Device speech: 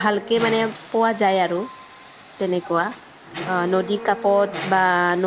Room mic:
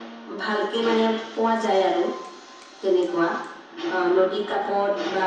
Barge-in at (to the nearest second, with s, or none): none